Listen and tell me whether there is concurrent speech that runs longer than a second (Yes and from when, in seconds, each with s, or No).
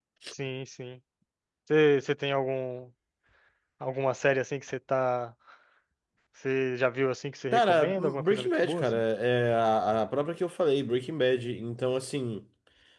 Yes, from 7.5 s